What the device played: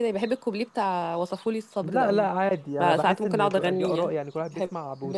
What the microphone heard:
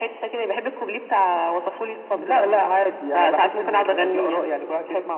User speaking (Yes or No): No